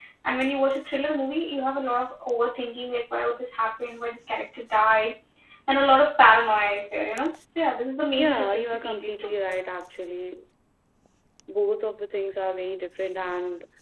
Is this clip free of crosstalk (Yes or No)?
No